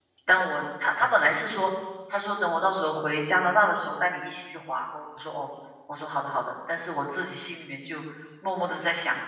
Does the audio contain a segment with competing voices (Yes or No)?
No